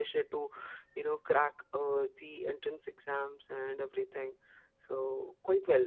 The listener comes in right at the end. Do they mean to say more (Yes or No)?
No